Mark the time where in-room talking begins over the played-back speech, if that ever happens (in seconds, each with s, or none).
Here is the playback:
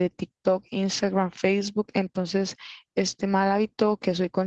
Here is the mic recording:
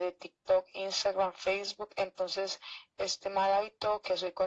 none